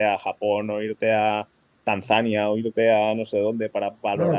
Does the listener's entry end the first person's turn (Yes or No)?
Yes